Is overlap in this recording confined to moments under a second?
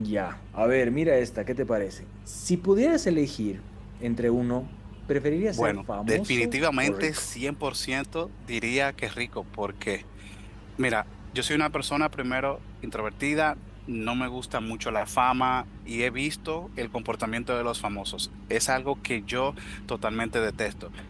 No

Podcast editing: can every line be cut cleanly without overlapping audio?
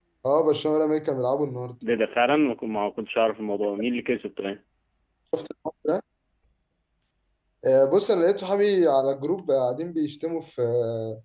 Yes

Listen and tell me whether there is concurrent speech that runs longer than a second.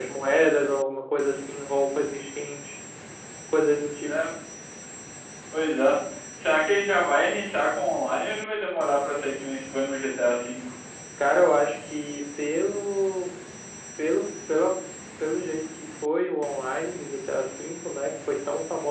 No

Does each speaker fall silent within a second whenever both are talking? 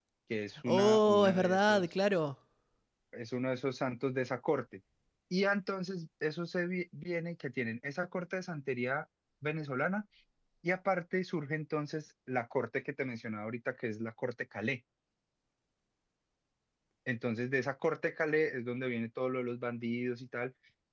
No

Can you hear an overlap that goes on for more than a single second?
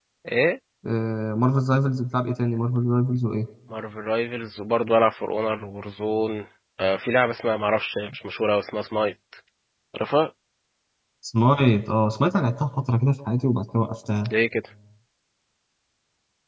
No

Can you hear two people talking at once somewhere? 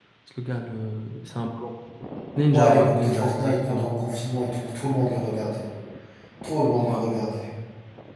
Yes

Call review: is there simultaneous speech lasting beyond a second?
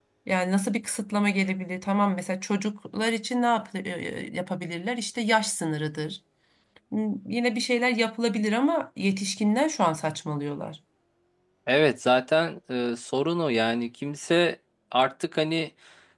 No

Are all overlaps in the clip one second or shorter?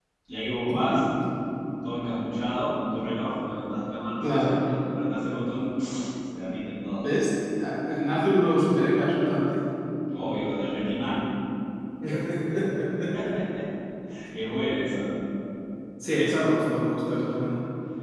Yes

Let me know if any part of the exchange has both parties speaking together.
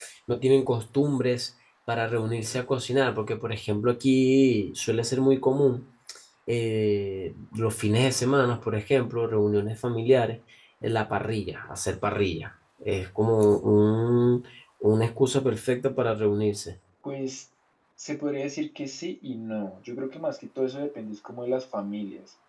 No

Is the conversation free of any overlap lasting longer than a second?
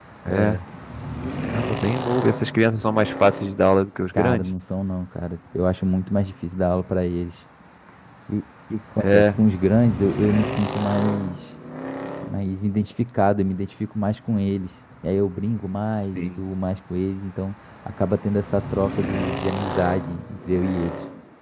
Yes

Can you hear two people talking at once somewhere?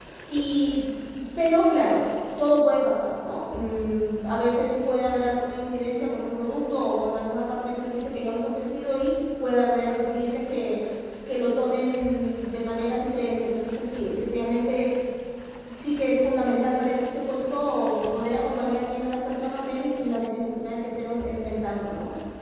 No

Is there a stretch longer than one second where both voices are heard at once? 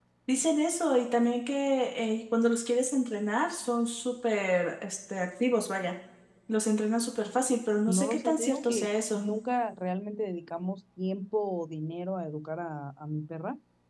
Yes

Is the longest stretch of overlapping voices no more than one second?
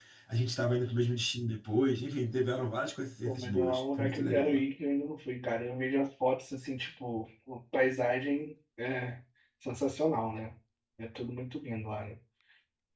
No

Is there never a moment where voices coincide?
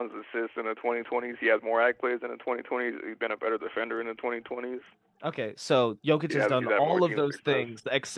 No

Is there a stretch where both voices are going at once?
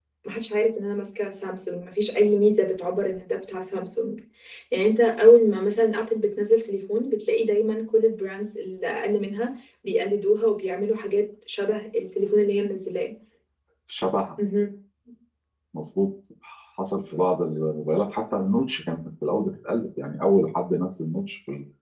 No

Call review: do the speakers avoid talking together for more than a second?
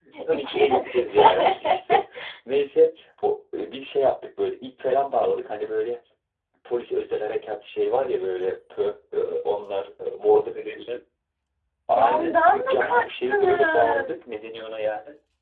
No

